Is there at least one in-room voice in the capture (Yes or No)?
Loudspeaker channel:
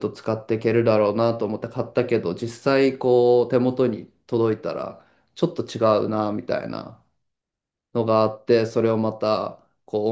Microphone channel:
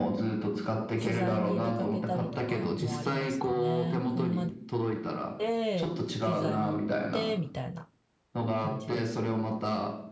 Yes